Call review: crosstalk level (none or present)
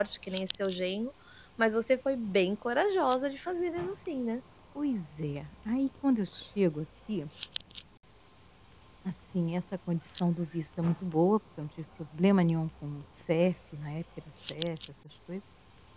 none